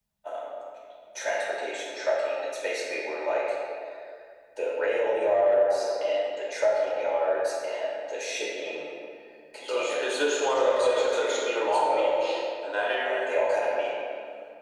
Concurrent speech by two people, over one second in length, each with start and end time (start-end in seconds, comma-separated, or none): 9.6-12.1